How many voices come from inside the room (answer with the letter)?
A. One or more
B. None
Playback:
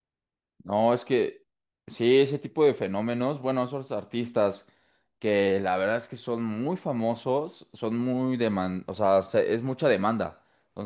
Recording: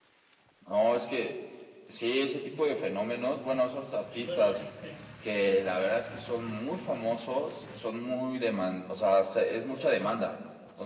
A